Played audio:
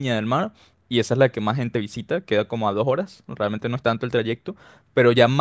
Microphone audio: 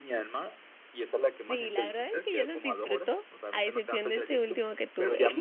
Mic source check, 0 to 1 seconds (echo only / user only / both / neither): echo only